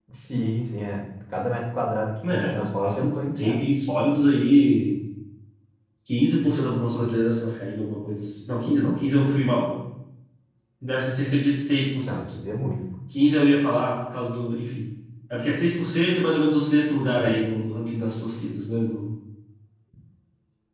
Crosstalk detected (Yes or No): Yes